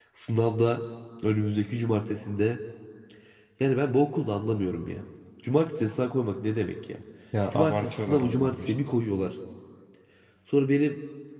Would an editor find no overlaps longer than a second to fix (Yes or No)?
No